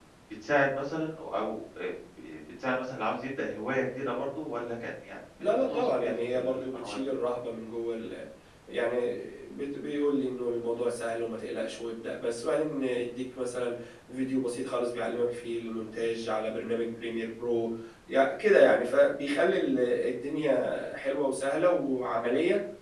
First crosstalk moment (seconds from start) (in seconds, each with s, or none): 5.4 s